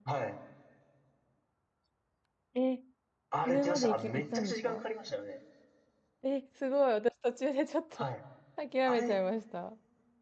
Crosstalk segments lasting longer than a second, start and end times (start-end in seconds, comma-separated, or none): 3.4-4.8